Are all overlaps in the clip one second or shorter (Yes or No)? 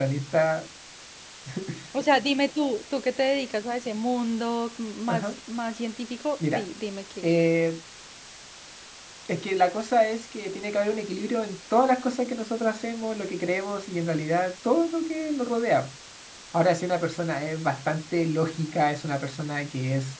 Yes